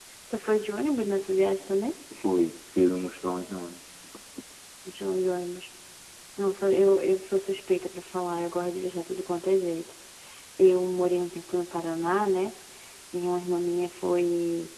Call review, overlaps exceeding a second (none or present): none